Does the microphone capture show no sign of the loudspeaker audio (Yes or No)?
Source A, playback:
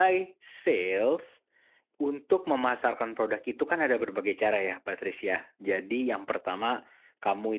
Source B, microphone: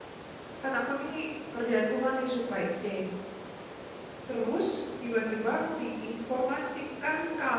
Yes